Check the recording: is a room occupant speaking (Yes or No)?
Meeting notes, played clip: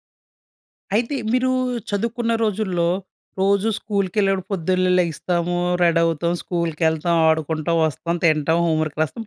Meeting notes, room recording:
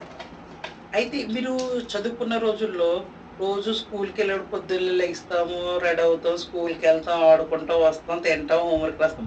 No